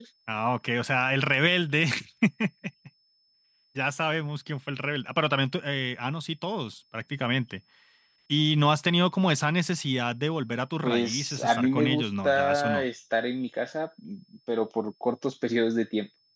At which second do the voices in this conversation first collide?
10.8 s

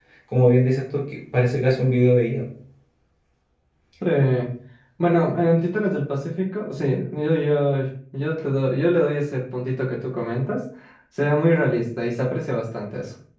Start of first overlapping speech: none

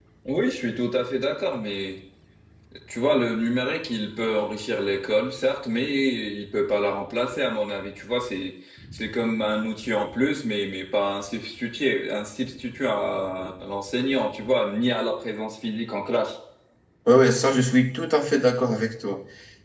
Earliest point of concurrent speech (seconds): none

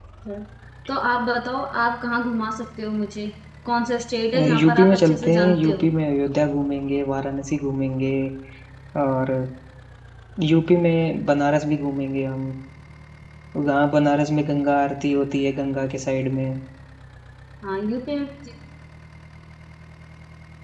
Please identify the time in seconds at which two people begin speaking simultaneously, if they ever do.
4.3 s

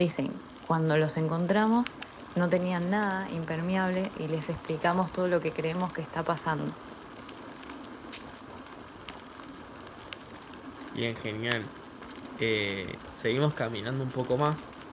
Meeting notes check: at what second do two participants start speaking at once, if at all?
none

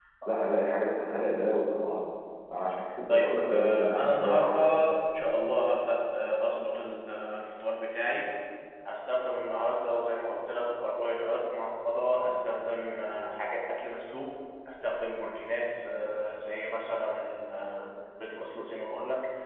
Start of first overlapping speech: 3.1 s

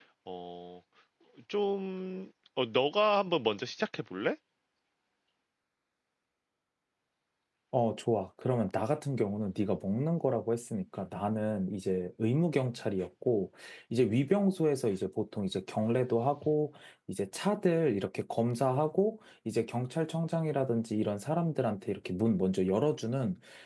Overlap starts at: none

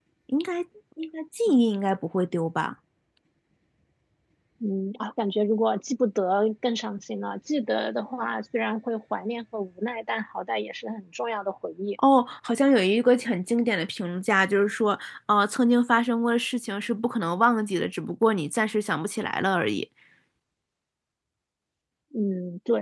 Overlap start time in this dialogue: none

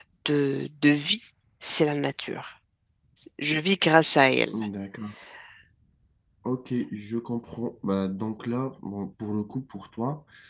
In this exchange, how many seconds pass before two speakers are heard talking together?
none

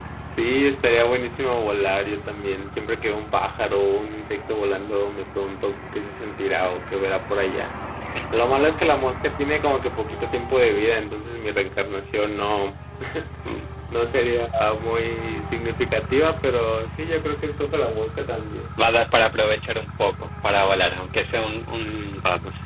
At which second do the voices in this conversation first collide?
none

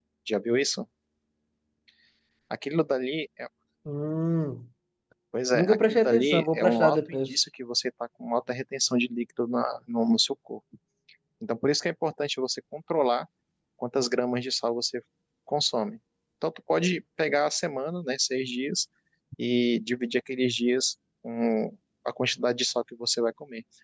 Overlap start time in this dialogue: 5.5 s

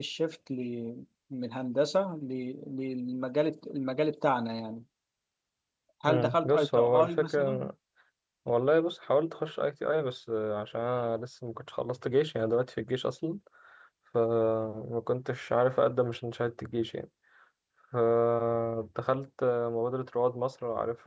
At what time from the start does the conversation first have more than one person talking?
6.1 s

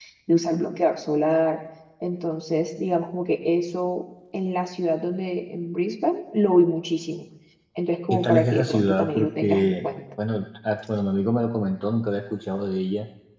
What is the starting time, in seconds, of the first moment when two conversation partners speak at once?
8.1 s

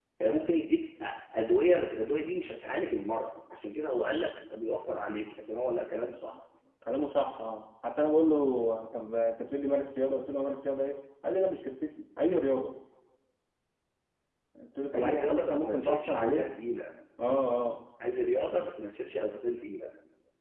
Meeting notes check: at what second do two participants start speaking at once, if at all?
14.9 s

